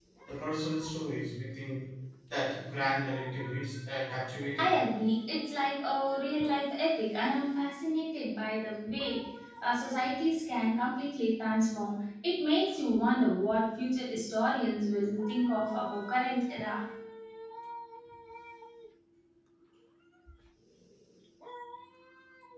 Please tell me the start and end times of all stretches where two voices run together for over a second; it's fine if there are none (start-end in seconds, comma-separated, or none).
none